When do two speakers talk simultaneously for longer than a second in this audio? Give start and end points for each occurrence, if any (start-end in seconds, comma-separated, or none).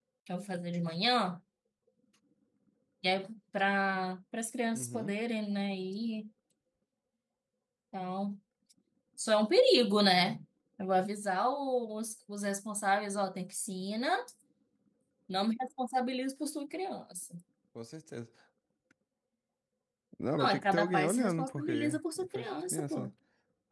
20.4-23.1